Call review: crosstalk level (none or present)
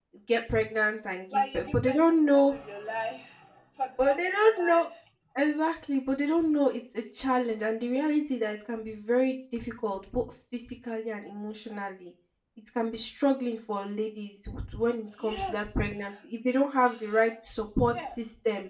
present